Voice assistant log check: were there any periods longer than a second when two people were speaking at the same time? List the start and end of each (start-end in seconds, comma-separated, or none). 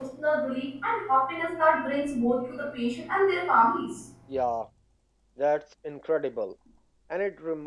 none